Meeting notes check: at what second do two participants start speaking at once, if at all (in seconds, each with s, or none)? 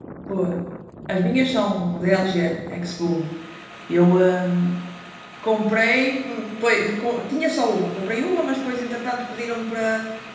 none